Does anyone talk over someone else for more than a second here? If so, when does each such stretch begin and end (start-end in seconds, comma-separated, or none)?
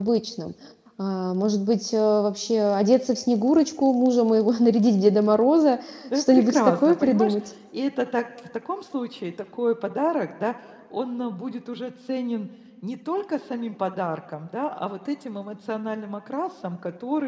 6.2-7.3